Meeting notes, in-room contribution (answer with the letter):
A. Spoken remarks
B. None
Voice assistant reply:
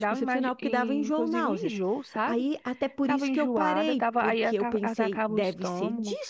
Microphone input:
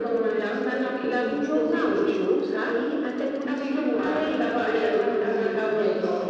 B